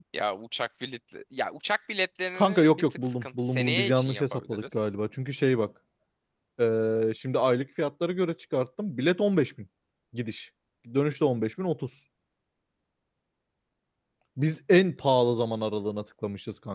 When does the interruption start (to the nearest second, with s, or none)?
2 s